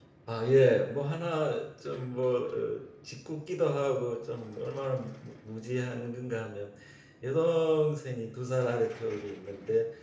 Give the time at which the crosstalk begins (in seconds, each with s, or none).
none